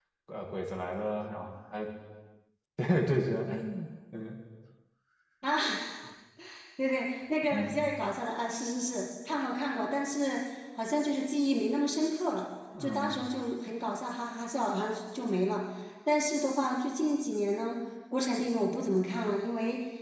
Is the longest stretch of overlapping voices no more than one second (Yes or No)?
Yes